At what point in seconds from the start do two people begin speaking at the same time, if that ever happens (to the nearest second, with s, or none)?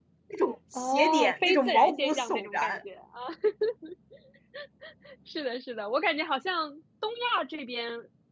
1 s